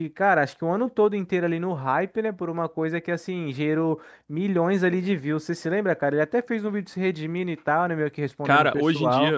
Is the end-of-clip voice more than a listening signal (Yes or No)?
Yes